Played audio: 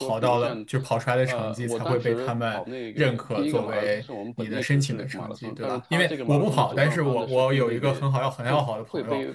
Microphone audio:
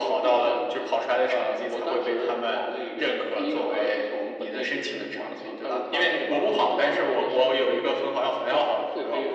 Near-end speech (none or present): none